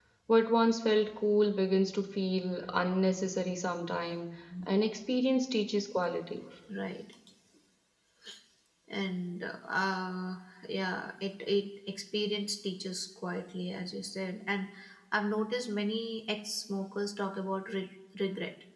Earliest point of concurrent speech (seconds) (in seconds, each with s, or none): none